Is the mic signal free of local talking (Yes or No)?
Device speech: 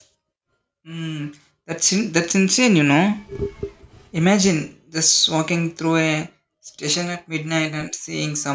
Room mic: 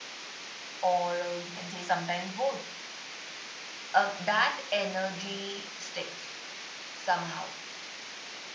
No